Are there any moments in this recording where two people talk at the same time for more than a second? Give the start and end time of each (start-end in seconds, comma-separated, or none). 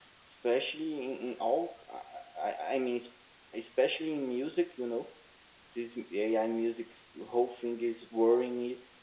none